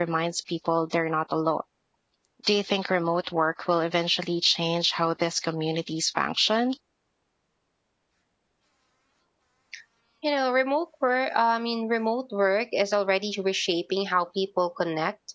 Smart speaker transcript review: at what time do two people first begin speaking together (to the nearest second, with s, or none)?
none